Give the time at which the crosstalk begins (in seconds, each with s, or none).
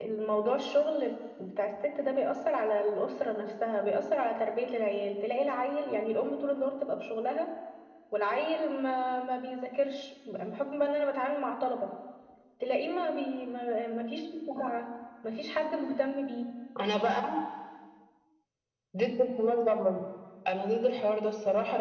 none